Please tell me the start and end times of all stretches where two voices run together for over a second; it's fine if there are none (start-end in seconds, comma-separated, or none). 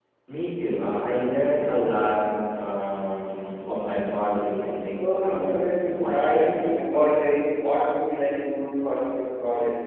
4.9-6.3